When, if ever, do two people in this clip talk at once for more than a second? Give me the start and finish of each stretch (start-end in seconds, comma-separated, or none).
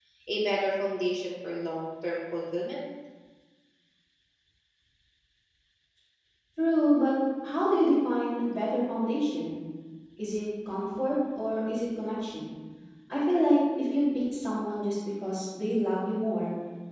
none